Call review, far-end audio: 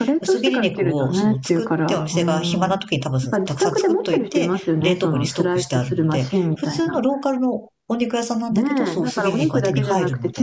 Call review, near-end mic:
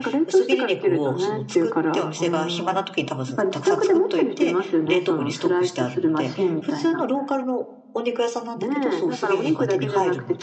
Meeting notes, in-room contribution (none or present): none